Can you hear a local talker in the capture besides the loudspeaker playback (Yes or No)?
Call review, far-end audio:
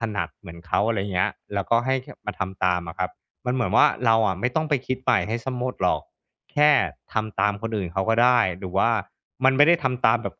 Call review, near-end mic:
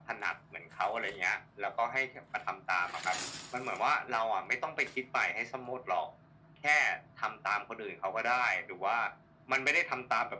No